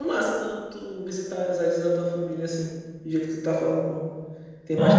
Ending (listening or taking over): listening